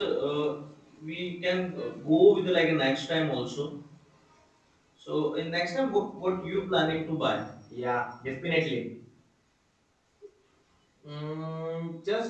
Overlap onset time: none

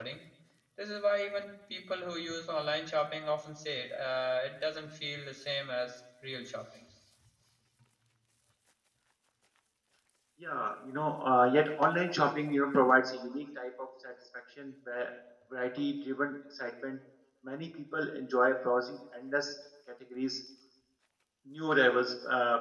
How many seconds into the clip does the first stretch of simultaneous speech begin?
none

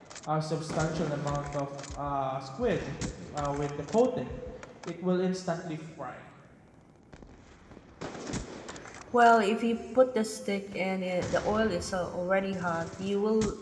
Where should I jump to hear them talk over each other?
none

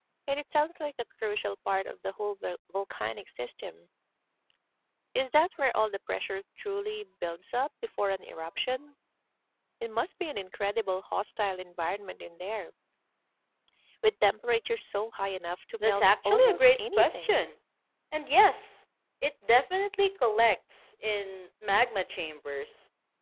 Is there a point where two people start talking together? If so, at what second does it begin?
15.8 s

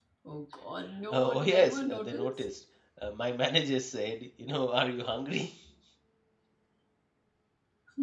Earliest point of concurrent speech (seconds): 1.1 s

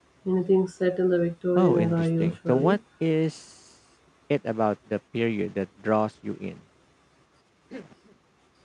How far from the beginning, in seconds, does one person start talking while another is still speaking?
1.6 s

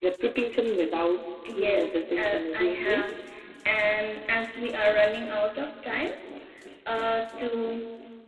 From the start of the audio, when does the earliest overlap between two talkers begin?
1.6 s

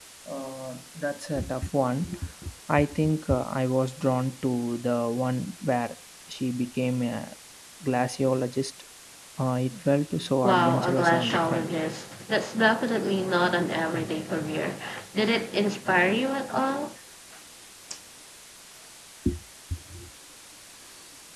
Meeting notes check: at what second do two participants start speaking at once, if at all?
10.4 s

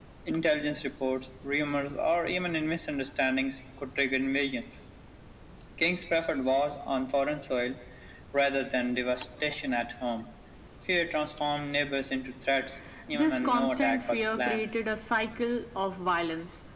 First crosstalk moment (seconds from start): 13.1 s

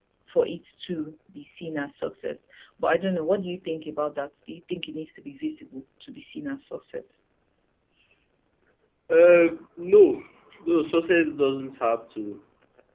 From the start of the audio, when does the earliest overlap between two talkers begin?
none

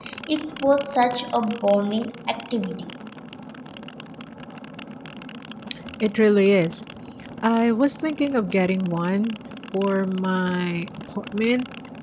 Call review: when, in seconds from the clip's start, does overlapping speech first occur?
none

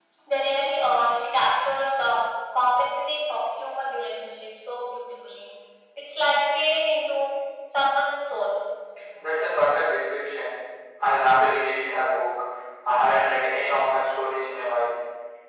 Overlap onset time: none

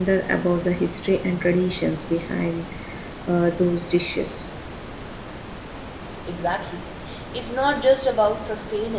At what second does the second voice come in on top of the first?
none

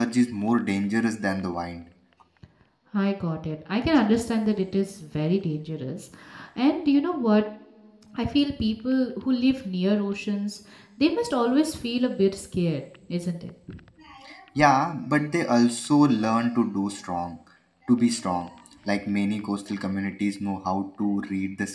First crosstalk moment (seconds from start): none

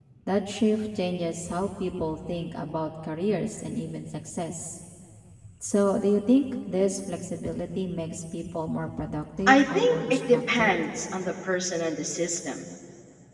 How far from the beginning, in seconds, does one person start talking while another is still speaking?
9.5 s

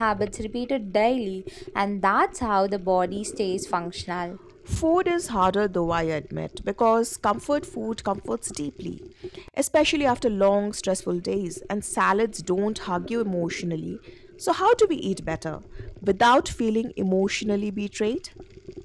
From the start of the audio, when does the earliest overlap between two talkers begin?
none

